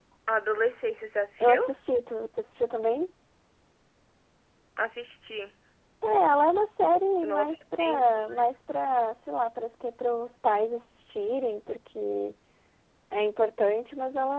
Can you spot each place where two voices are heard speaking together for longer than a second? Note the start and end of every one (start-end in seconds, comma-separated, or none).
7.2-8.4